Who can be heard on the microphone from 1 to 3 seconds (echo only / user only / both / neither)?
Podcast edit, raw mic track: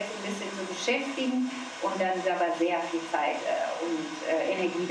echo only